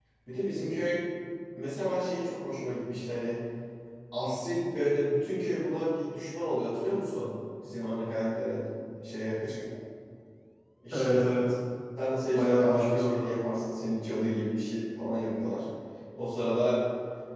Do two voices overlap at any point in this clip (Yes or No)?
Yes